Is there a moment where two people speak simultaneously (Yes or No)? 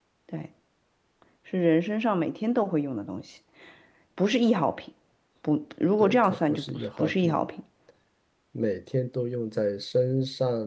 Yes